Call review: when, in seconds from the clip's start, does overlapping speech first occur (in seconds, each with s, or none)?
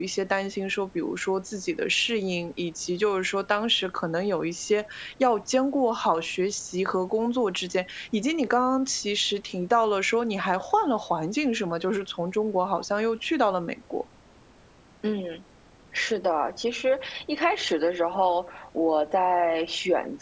none